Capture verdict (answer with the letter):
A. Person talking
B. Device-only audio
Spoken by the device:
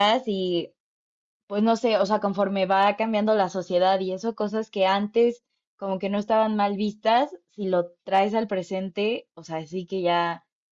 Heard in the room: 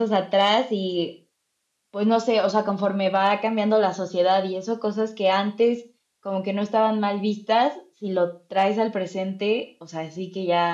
B